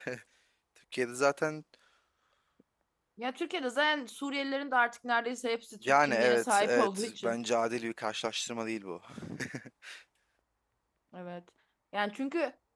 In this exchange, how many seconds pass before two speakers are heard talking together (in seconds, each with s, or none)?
5.8 s